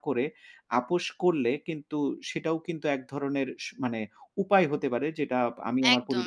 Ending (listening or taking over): taking over